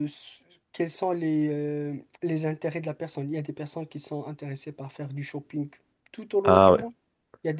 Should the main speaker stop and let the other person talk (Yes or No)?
No